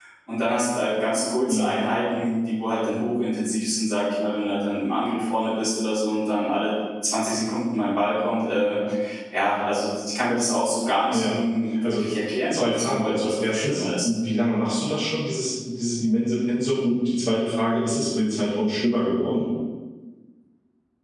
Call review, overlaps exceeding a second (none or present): present